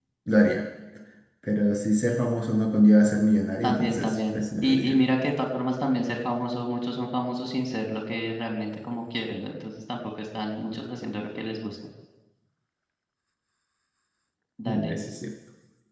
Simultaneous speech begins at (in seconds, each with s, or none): 3.6 s